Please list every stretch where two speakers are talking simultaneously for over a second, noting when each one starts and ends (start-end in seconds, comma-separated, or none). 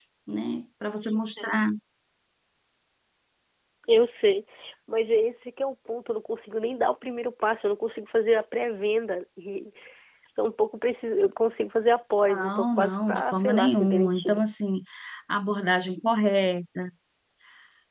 12.3-14.4